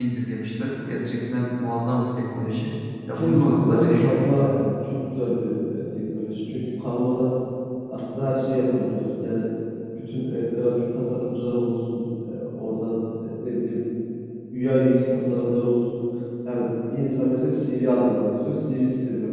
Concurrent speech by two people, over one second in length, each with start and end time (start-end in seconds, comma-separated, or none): 3.2-4.6